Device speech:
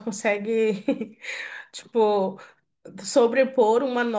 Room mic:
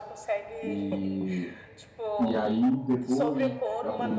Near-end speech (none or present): present